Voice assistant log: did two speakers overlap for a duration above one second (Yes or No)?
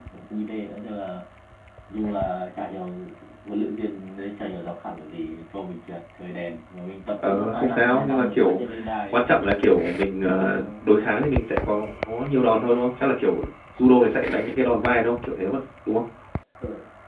Yes